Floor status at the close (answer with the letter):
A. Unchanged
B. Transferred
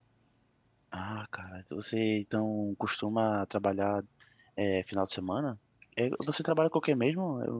A